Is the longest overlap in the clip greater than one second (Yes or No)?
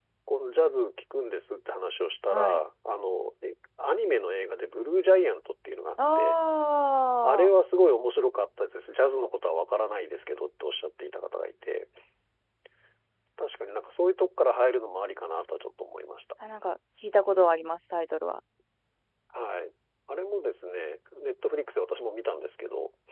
No